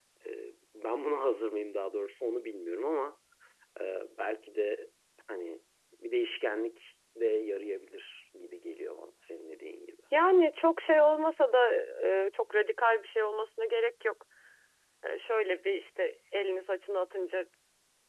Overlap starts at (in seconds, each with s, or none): none